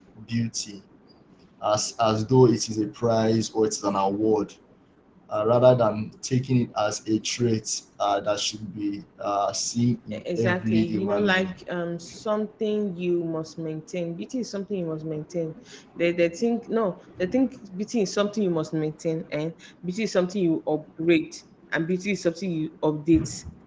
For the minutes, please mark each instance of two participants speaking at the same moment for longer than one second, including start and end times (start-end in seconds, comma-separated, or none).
10.1-11.5